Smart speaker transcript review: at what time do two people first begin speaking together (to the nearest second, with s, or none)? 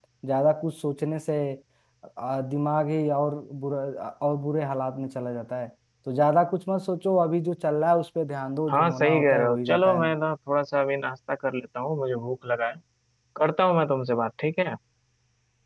9 s